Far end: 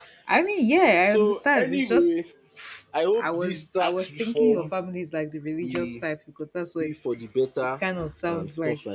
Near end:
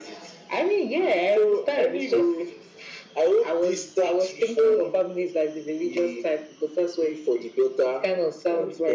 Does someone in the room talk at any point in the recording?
No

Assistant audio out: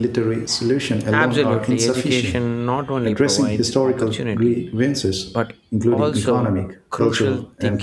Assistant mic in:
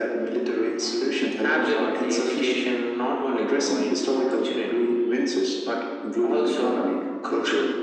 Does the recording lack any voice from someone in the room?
Yes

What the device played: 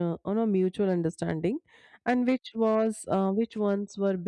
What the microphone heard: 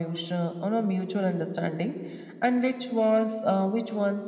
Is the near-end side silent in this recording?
Yes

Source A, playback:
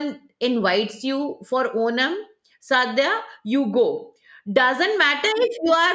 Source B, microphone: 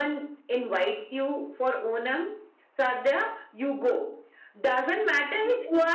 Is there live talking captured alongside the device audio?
No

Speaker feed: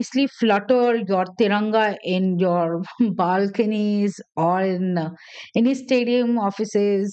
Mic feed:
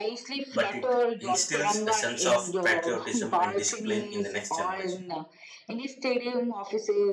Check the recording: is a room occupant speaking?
Yes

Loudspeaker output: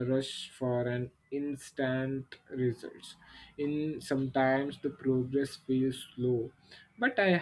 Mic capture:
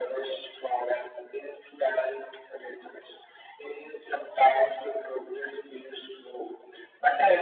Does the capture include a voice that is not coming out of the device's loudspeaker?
No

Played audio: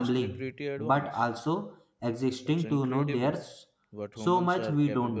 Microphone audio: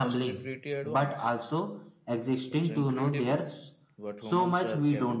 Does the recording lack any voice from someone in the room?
Yes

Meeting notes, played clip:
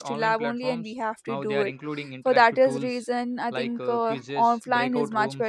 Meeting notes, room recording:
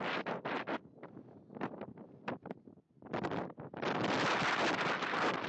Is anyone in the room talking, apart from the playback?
No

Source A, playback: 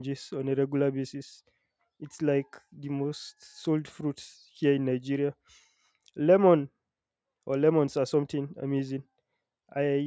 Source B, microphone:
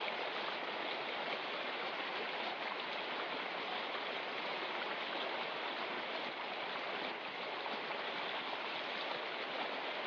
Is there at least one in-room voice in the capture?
No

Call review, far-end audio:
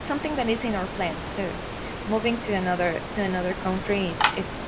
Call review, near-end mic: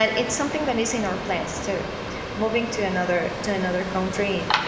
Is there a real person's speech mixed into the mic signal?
No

